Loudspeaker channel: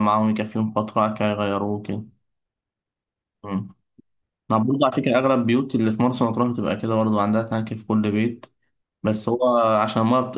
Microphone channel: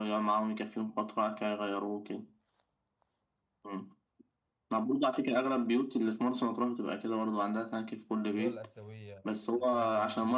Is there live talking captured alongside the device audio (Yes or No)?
Yes